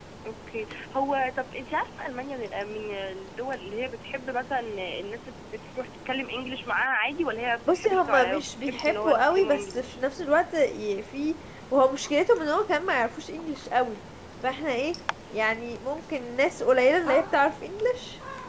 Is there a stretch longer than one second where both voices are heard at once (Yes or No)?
Yes